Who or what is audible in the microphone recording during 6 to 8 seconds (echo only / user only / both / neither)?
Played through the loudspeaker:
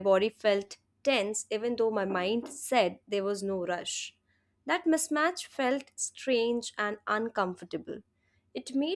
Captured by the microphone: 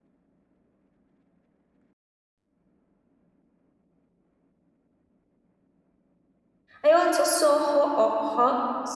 user only